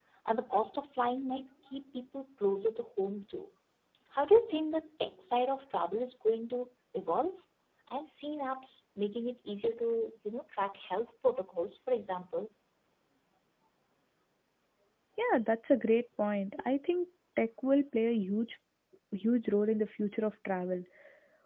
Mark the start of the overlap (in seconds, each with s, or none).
none